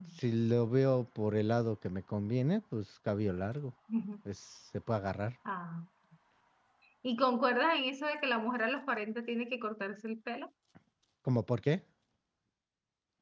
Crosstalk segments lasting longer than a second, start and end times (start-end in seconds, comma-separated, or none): none